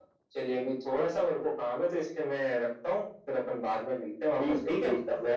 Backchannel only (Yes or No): No